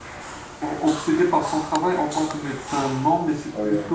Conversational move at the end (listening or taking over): listening